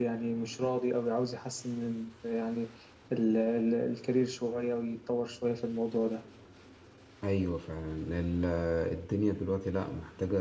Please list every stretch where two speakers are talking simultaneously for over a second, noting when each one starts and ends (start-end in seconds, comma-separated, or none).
none